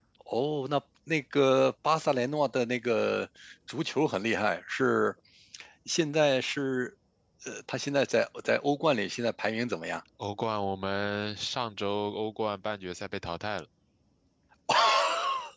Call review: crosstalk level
none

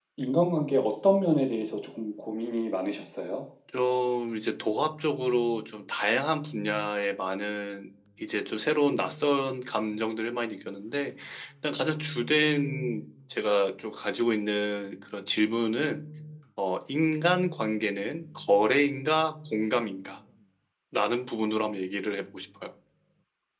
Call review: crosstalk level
none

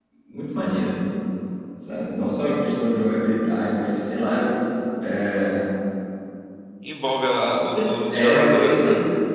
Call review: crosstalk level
present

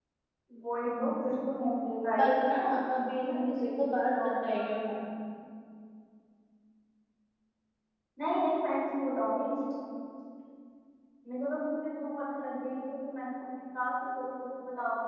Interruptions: present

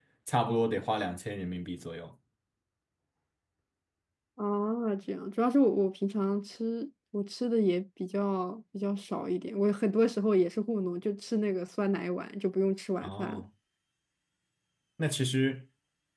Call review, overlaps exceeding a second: none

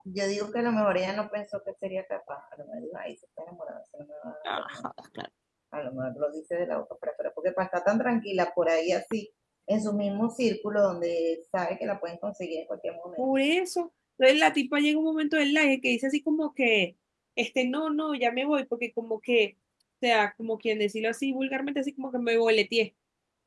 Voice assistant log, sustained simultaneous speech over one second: none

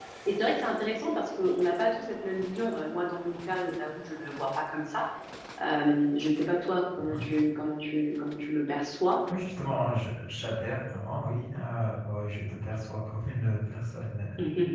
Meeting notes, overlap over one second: none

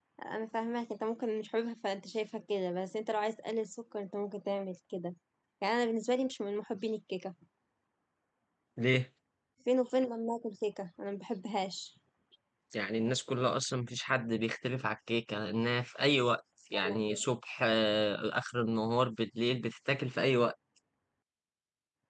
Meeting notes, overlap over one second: none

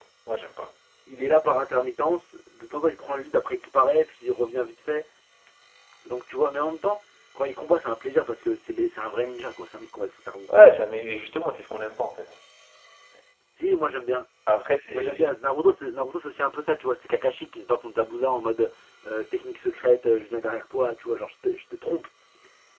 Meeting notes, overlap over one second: none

